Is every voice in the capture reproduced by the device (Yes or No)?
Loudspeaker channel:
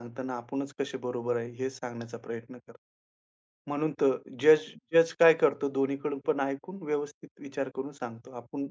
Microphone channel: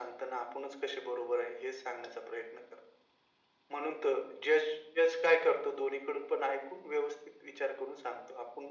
Yes